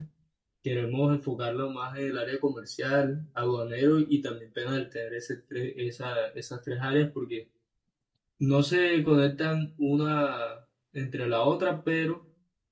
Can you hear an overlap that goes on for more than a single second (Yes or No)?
No